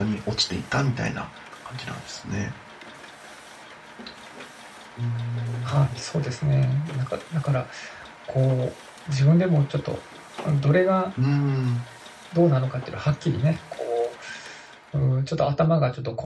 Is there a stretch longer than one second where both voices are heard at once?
No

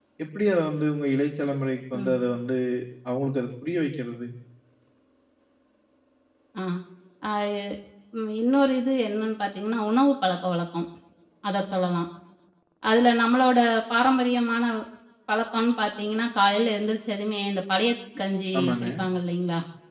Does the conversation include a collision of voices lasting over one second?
No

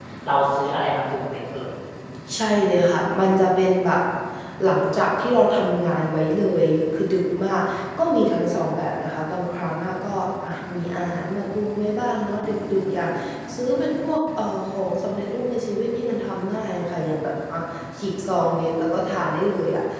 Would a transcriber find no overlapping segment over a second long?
Yes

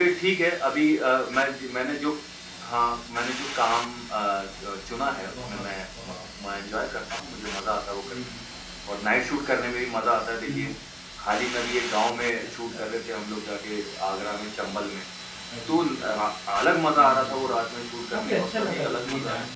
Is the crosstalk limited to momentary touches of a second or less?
No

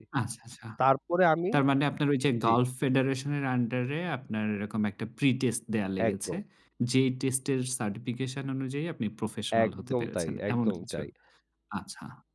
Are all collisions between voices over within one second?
No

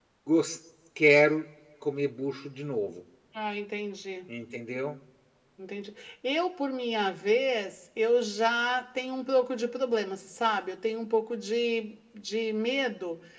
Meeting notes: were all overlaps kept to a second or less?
Yes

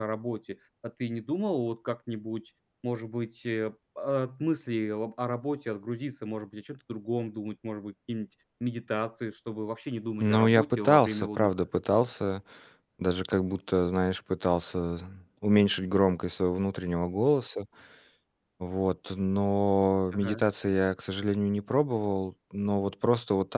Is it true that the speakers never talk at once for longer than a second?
No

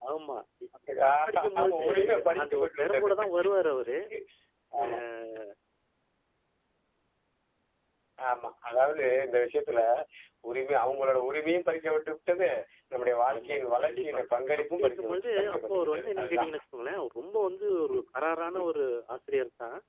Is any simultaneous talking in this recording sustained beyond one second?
Yes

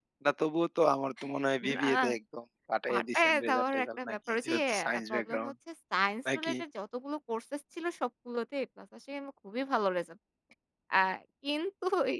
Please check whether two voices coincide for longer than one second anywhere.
Yes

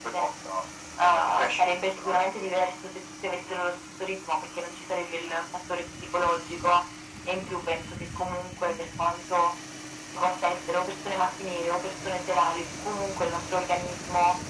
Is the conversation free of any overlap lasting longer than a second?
No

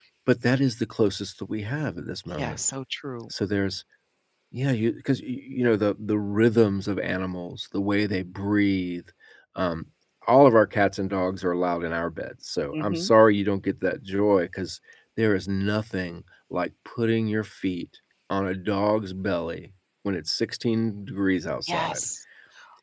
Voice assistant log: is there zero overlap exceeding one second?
Yes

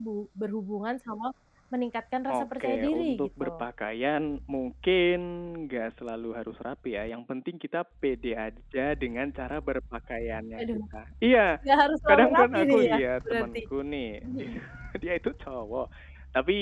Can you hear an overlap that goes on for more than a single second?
Yes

